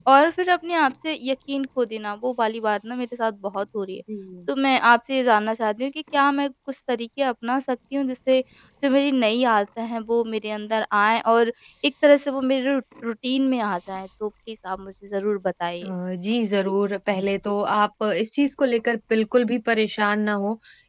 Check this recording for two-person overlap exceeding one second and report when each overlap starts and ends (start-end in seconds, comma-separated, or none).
none